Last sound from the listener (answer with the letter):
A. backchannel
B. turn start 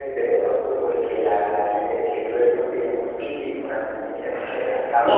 B